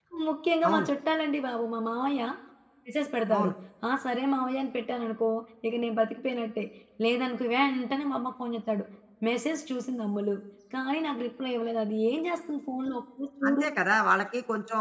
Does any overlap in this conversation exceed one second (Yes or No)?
No